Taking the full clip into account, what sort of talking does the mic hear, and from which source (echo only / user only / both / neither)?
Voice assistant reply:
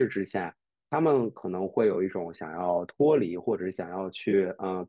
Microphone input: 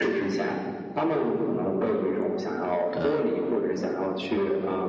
both